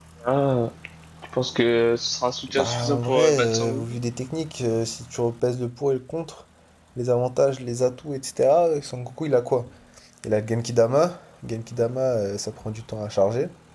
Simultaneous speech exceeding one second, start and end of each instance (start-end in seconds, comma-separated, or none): 2.5-4.0